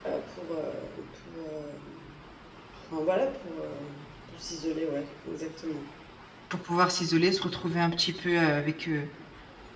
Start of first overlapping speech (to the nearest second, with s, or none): none